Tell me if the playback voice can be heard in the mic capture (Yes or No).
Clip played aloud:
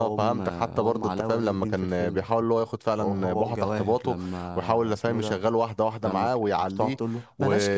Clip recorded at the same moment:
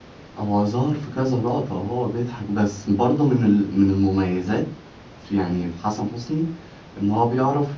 No